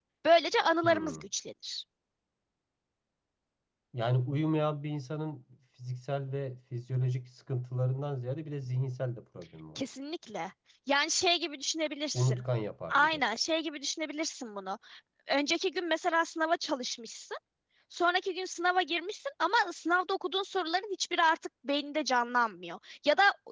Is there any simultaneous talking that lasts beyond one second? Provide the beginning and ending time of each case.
none

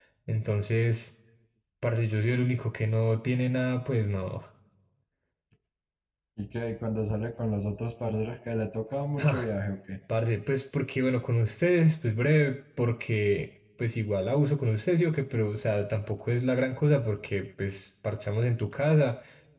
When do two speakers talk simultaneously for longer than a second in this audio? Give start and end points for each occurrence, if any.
none

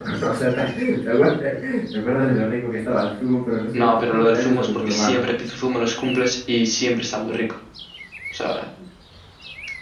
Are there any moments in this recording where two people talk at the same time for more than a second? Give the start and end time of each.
3.7-5.2

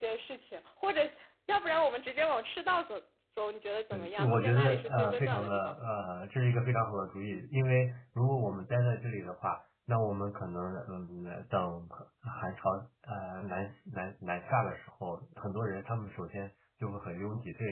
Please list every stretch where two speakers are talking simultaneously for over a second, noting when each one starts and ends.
3.9-5.7

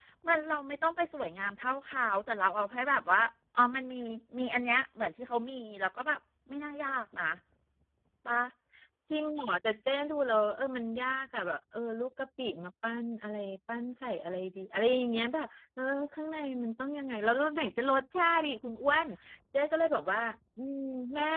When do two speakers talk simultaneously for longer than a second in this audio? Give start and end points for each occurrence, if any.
none

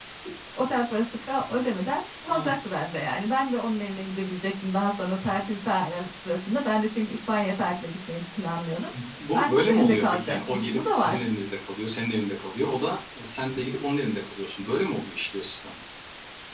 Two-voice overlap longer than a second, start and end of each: 9.3-11.2

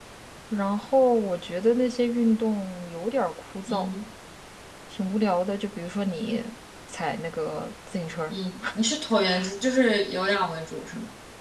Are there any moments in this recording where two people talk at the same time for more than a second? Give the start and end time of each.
none

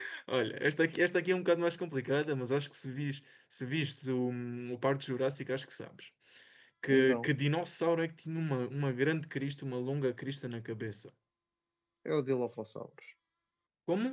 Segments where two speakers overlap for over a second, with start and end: none

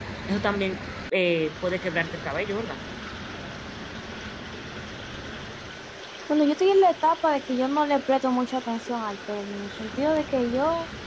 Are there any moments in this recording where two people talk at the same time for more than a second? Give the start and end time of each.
none

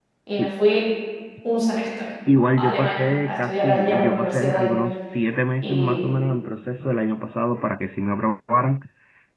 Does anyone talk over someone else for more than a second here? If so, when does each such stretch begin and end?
2.5-4.7

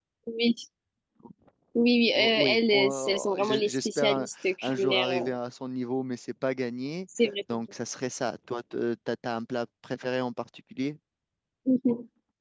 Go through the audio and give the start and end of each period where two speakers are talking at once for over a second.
2.1-5.3

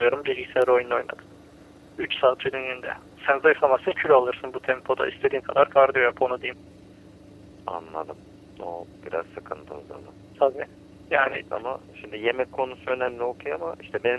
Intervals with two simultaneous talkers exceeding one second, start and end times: none

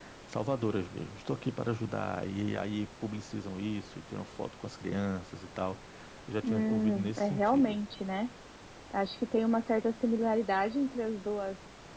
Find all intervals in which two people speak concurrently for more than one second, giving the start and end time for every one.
6.4-7.8

